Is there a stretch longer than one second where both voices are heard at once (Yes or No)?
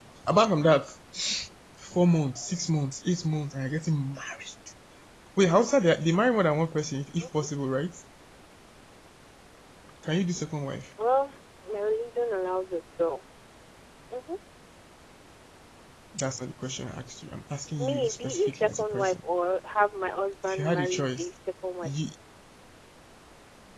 Yes